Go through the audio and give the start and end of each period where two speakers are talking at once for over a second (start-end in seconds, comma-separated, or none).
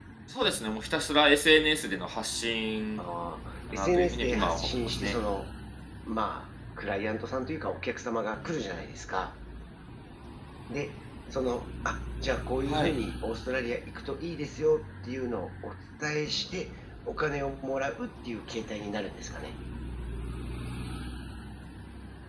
3.7-5.2